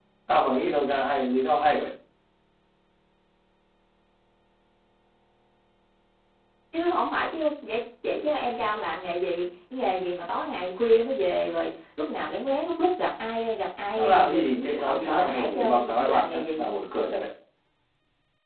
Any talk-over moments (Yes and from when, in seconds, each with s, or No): Yes, from 14.0 s